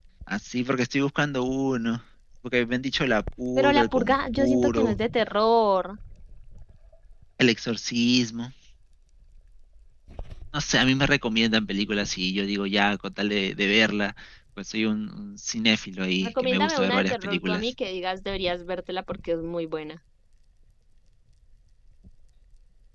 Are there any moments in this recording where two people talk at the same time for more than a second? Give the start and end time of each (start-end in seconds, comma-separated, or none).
3.6-5.0, 16.2-17.7